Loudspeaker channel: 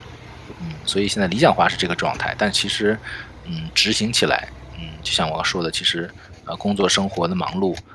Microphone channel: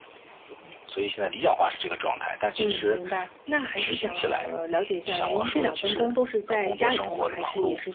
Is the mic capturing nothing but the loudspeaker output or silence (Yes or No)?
No